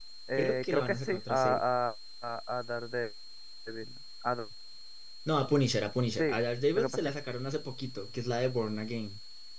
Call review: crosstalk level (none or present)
present